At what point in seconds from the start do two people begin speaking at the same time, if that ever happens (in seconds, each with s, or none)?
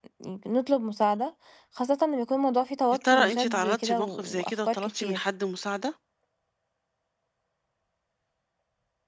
3.0 s